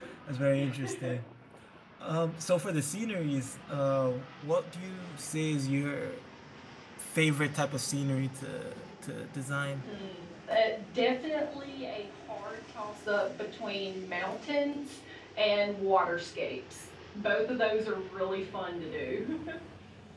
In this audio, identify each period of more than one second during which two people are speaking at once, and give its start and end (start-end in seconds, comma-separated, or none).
none